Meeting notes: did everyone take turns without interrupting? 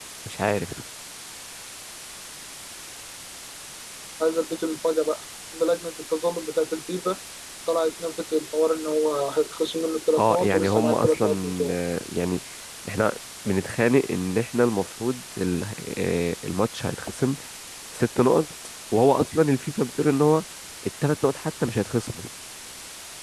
No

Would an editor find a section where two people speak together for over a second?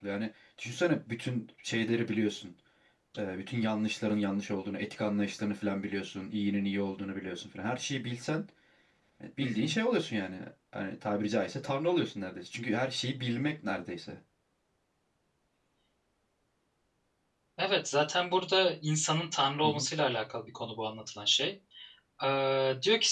No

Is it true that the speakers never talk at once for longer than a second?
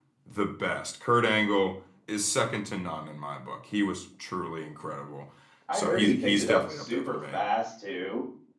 No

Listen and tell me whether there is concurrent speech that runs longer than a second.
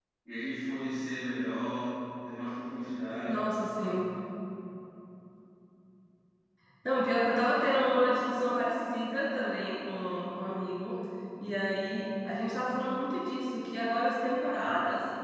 No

